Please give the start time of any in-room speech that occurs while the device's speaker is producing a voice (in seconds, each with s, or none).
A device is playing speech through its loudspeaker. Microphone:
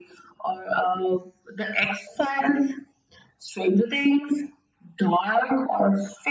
none